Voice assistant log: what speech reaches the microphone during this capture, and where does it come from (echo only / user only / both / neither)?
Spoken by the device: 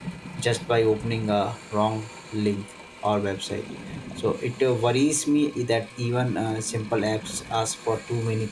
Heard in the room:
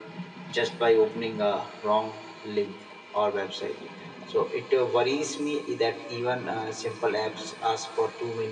echo only